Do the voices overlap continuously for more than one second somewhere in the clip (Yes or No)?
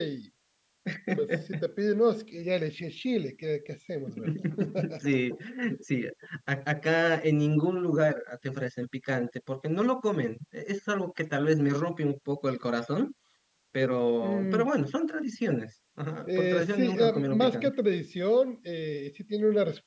Yes